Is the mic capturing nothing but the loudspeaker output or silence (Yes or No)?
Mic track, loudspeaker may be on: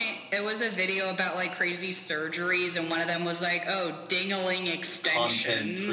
No